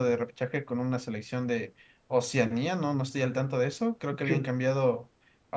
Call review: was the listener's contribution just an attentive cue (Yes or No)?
Yes